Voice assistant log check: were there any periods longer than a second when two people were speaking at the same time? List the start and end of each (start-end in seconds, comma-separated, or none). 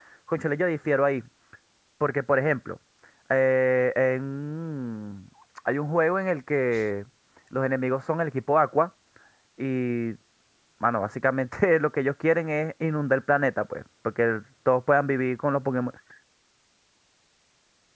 none